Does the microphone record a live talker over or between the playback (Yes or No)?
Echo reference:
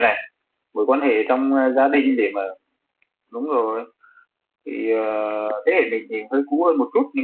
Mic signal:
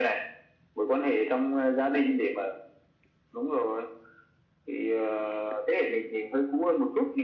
No